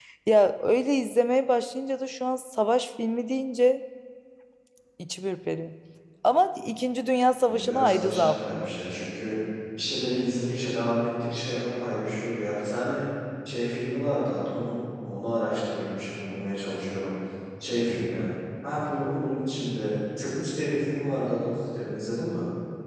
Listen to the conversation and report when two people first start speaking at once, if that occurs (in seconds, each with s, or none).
7.4 s